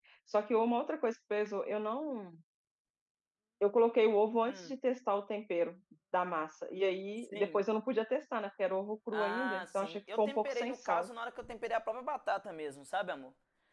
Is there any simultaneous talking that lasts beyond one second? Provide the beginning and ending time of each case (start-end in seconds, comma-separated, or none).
9.1-11.1